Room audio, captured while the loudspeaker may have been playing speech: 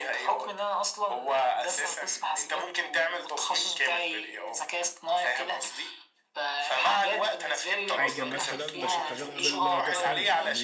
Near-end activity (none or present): present